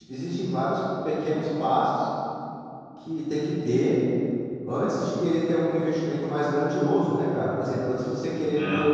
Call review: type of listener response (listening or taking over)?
listening